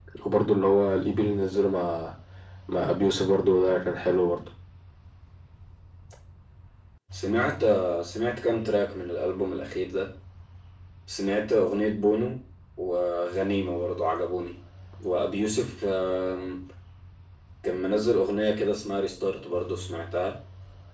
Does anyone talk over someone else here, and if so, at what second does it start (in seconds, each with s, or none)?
none